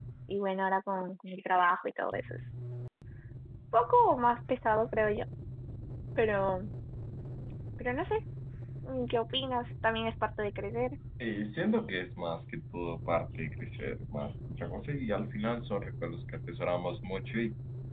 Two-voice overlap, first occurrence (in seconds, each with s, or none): none